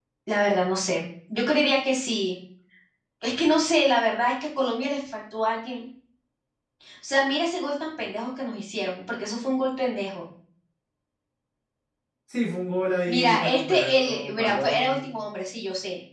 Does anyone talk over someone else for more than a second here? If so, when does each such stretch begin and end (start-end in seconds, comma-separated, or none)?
13.1-15.0